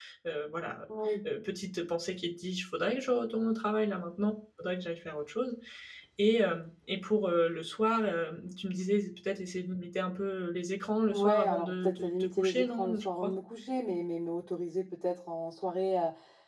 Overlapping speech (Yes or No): Yes